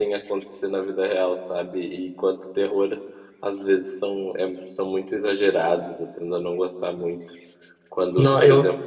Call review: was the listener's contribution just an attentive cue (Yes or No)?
Yes